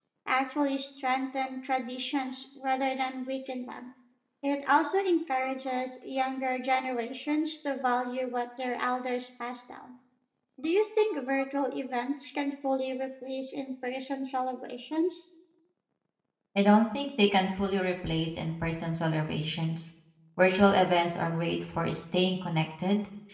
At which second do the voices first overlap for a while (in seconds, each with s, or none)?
none